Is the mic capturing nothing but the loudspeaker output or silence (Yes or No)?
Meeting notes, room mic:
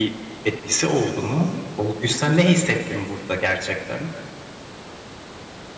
Yes